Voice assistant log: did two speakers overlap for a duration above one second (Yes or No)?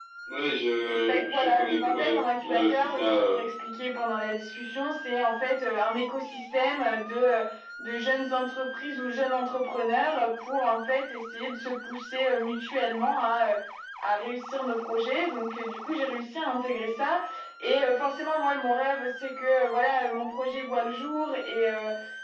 Yes